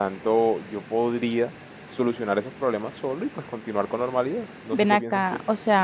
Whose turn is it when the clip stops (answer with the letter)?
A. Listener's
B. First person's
A